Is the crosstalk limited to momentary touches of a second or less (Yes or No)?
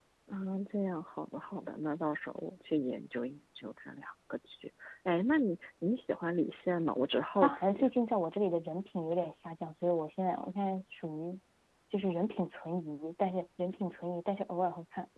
Yes